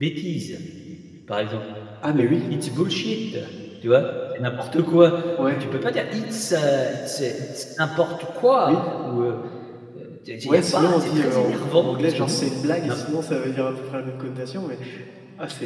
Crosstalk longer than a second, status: present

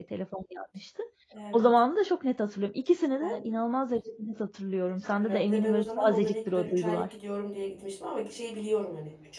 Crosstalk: present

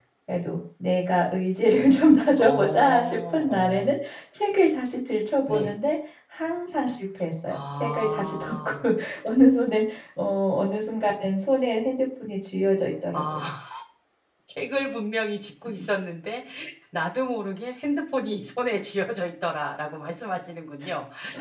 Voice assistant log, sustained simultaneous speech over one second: present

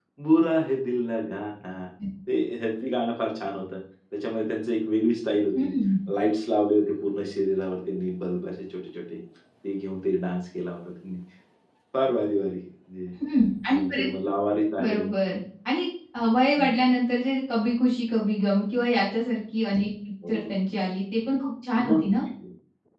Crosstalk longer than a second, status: none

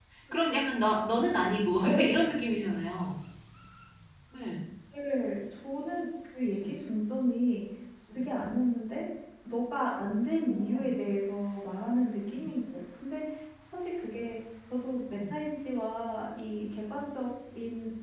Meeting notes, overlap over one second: none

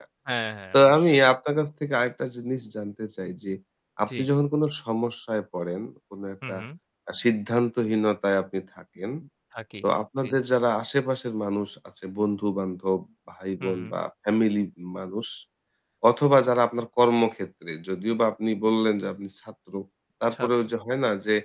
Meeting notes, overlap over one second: none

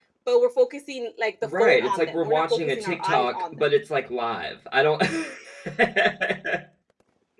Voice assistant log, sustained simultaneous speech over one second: present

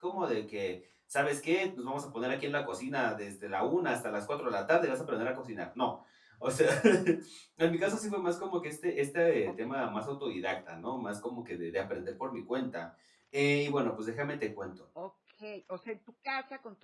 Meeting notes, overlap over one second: none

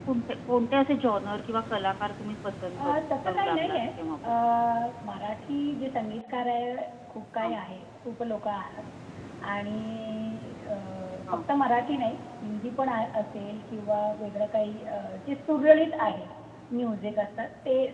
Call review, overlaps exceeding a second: present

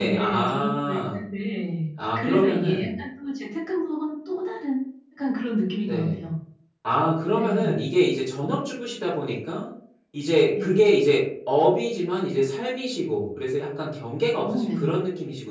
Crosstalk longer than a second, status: present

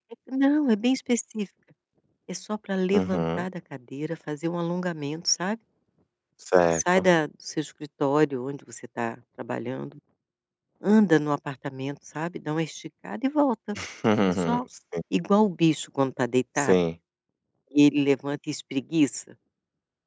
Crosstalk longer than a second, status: none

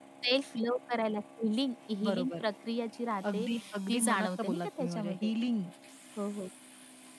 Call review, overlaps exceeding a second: present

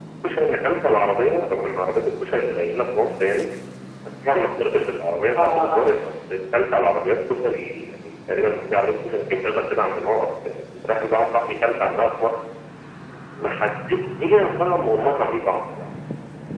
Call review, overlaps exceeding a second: none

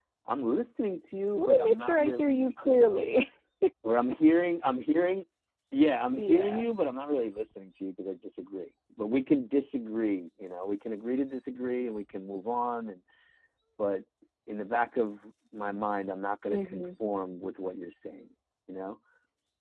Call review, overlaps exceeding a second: present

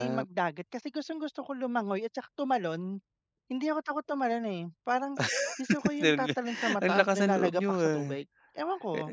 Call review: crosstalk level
present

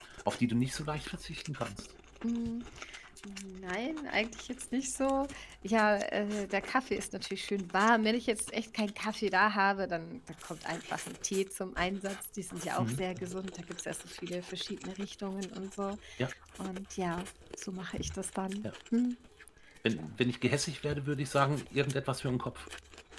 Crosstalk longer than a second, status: none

